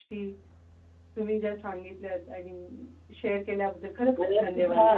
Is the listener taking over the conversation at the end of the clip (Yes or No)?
Yes